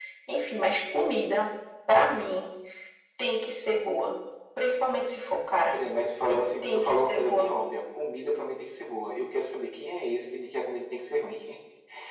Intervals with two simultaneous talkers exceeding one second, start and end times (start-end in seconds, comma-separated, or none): 6.3-7.5